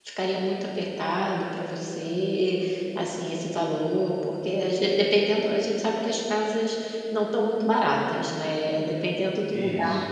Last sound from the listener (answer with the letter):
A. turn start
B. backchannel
B